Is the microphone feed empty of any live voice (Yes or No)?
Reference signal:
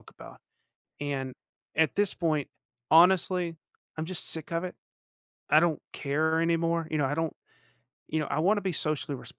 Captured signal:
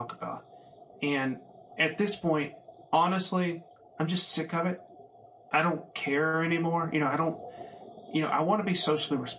Yes